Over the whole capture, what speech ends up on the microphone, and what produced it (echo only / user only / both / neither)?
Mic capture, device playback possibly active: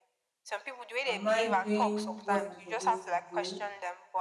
both